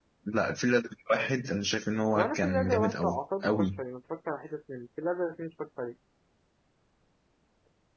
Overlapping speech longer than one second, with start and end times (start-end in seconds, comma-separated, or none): 2.1-3.8